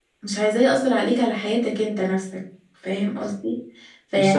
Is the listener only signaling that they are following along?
Yes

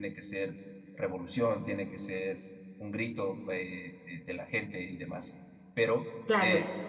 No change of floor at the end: Yes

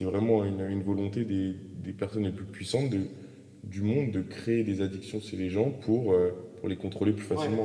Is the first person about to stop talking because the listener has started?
Yes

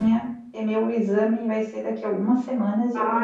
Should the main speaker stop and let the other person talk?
Yes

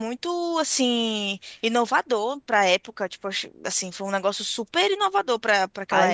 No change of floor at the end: No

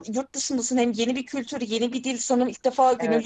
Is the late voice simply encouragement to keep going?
Yes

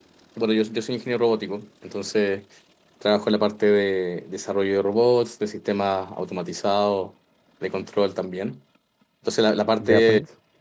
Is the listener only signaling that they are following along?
Yes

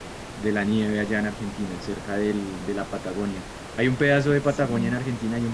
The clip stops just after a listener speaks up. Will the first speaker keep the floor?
Yes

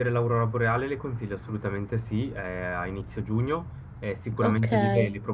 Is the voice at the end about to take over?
No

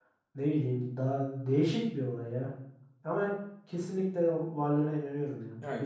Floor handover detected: Yes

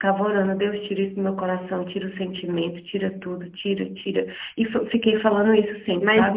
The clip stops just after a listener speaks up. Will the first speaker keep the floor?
No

